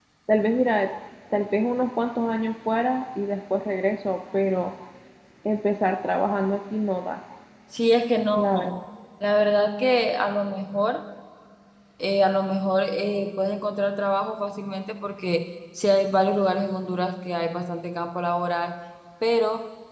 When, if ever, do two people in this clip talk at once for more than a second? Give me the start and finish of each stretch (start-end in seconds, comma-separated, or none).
none